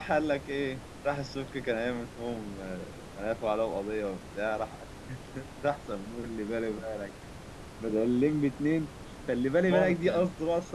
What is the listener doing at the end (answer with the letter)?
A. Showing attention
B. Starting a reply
A